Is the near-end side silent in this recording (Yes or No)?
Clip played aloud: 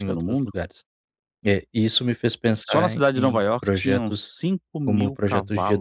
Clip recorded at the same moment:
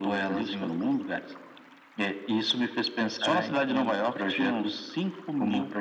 Yes